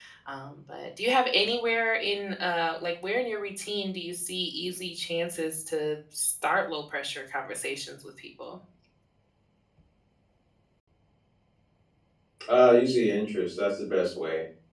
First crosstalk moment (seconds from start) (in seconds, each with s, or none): none